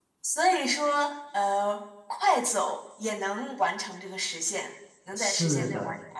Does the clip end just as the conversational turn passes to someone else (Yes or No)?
Yes